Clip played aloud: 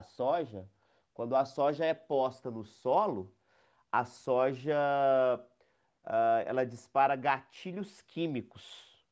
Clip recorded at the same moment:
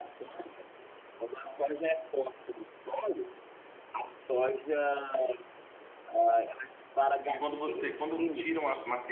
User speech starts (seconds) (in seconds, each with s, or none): 7.2 s